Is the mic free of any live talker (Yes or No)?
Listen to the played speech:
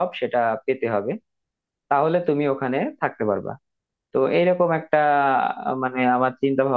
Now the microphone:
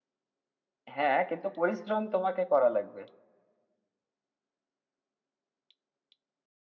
No